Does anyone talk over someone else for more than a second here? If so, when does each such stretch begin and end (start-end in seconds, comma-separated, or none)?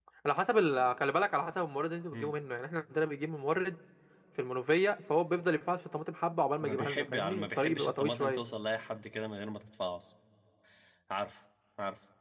6.6-8.4